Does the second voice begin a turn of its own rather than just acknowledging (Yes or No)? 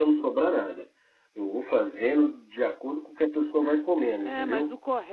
Yes